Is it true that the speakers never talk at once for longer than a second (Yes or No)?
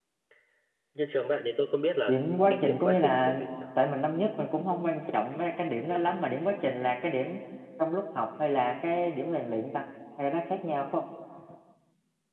No